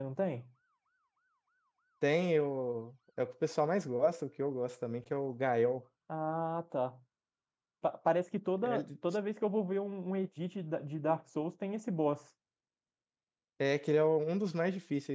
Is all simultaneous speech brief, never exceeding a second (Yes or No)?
Yes